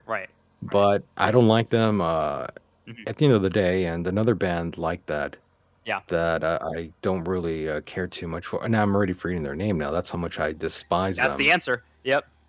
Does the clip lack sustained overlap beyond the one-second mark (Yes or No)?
Yes